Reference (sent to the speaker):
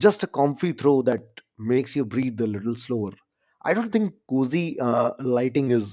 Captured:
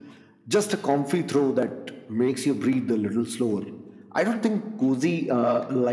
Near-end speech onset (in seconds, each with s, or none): none